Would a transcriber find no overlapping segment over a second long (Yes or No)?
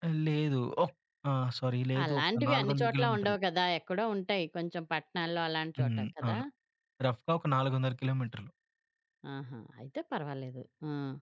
No